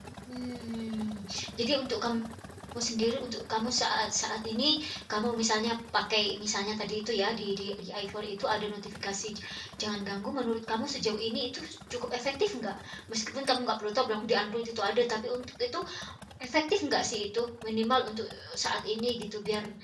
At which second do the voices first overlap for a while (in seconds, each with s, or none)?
none